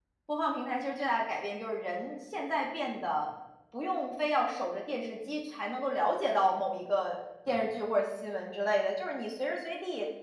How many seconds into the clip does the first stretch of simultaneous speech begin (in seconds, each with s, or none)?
none